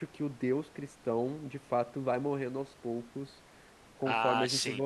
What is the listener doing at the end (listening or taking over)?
taking over